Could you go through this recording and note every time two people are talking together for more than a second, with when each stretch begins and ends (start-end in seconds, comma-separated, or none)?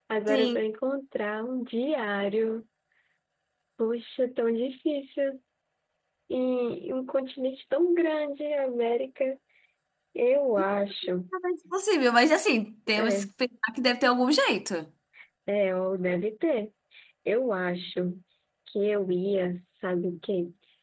none